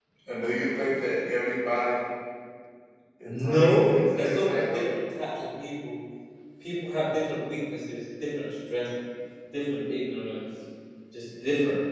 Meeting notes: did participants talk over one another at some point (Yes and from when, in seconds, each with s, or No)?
Yes, from 3.2 s